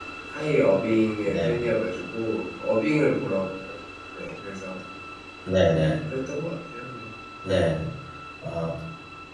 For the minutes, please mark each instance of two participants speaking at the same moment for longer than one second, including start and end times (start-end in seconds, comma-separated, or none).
none